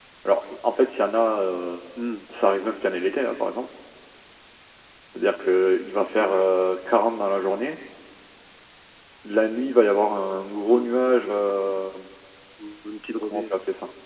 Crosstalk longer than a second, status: none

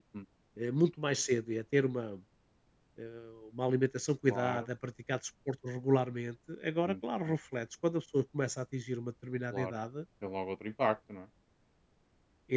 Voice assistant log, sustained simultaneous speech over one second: none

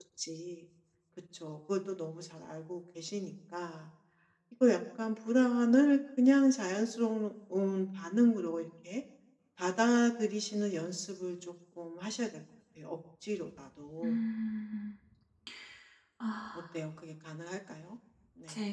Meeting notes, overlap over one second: none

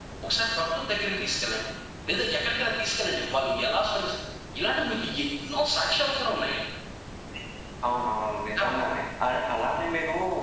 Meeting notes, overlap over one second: none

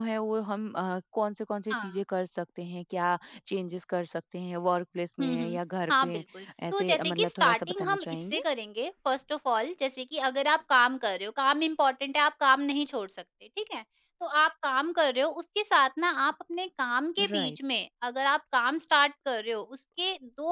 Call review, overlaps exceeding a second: present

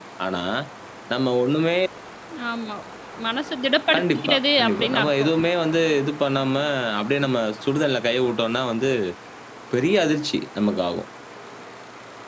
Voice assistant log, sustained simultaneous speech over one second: present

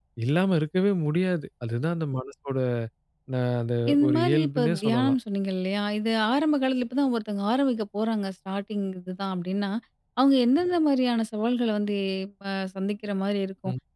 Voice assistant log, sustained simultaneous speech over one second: present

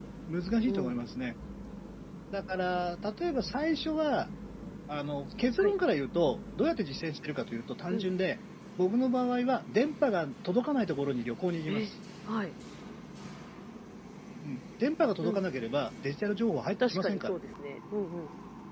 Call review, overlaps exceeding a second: none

